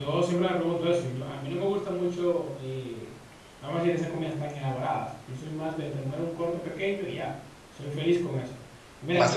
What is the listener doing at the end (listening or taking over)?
listening